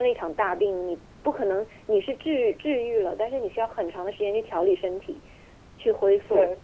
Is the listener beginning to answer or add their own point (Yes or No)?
No